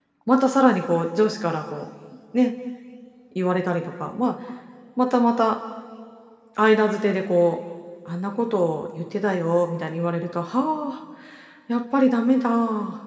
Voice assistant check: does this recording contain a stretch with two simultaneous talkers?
No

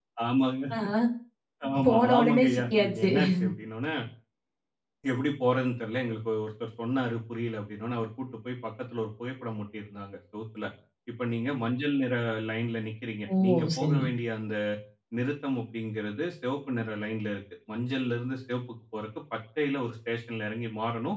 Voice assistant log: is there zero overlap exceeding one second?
No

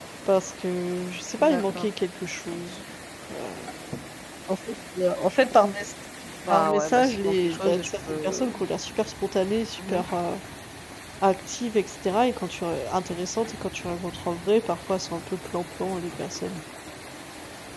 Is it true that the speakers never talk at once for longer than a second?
No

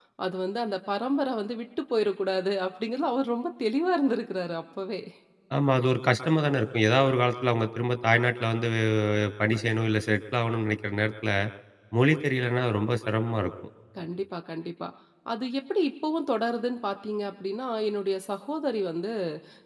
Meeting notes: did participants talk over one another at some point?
No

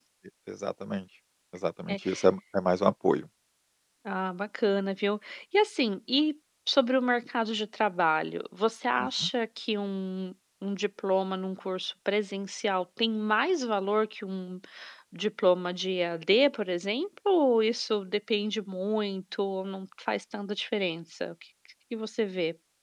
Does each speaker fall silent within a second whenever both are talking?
Yes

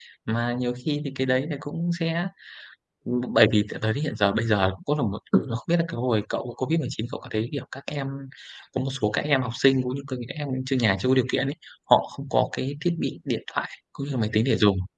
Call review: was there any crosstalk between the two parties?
No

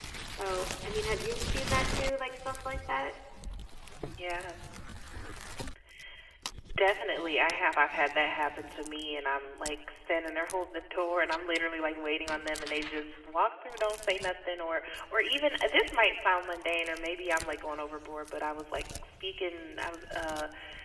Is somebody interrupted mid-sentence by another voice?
No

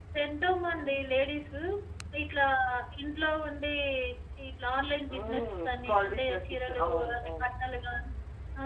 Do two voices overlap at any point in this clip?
Yes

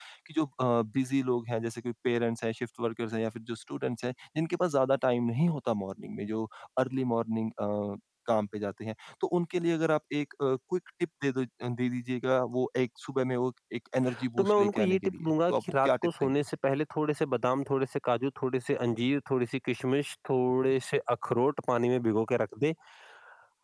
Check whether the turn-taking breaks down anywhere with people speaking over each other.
Yes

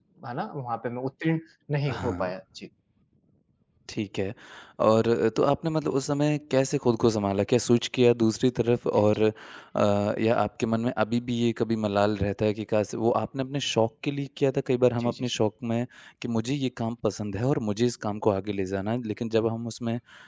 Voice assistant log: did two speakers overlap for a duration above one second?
No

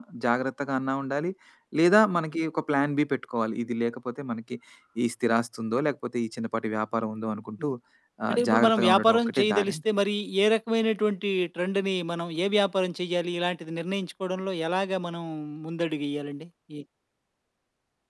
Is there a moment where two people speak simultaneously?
Yes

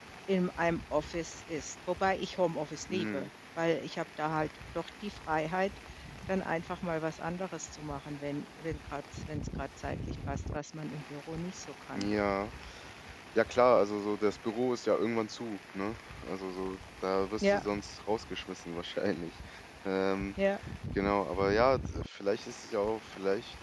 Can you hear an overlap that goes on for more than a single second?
No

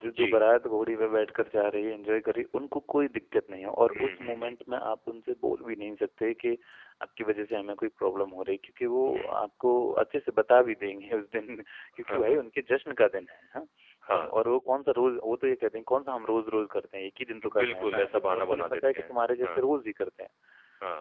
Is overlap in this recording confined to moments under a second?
No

